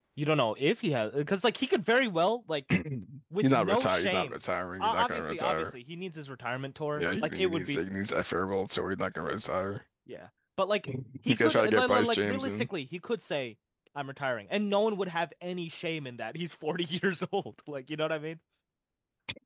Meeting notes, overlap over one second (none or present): present